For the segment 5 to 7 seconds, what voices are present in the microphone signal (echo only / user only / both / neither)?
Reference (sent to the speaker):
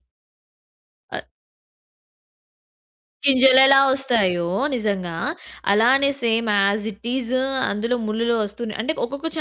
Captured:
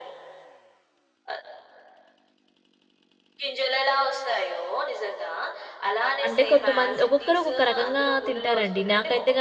both